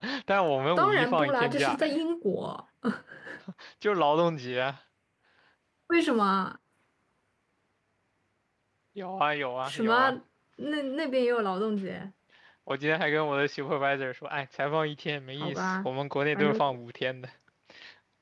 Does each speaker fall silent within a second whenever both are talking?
No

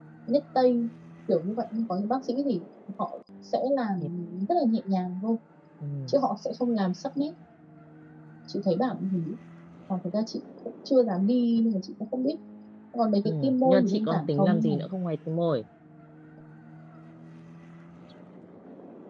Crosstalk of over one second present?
Yes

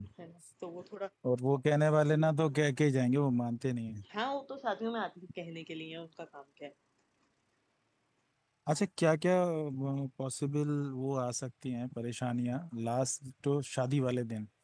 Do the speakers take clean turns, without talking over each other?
Yes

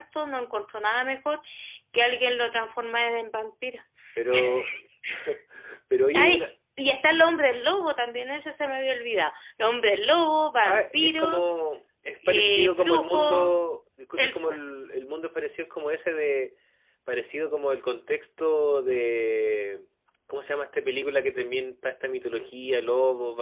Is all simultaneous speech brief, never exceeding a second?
No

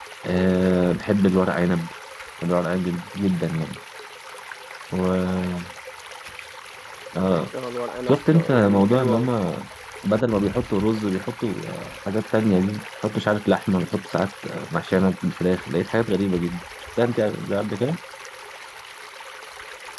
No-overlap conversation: No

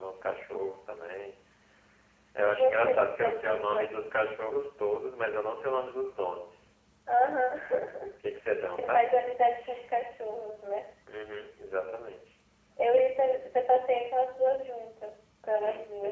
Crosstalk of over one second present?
Yes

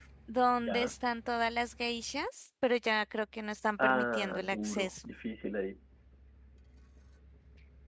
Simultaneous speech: Yes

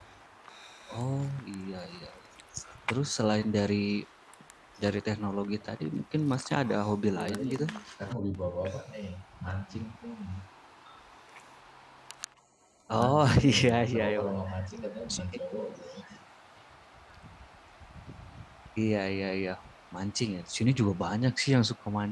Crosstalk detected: Yes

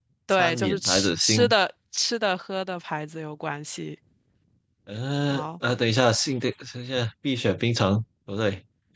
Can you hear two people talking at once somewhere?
Yes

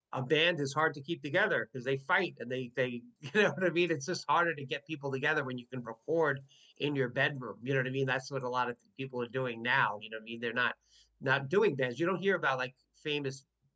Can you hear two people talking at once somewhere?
No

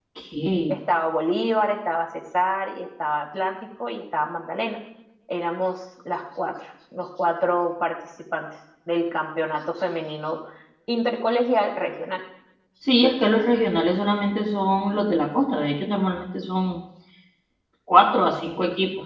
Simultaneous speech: No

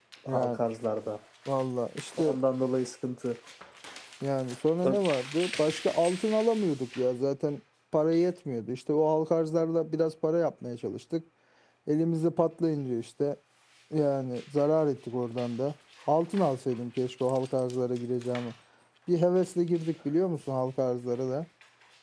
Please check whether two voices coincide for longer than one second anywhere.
No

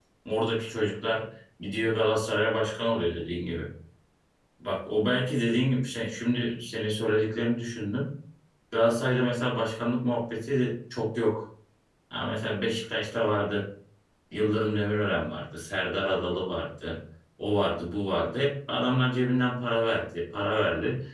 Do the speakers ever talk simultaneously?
No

